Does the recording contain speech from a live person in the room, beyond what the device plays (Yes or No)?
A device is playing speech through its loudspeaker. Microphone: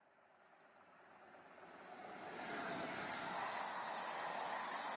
No